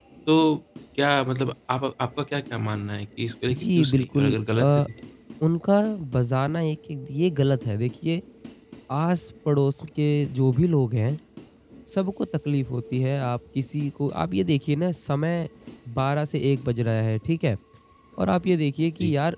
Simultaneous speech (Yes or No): Yes